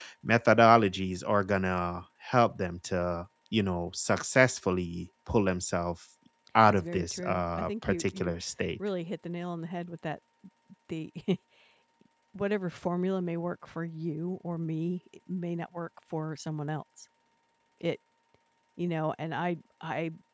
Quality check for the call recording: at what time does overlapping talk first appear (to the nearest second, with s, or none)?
7 s